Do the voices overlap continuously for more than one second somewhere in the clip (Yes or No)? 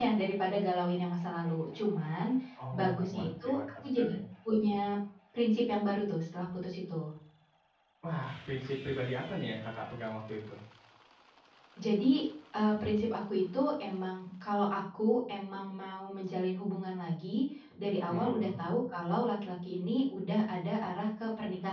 Yes